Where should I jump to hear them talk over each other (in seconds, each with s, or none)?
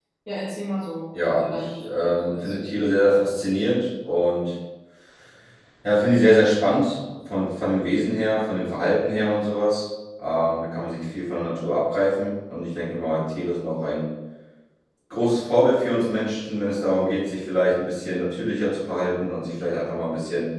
1.2 s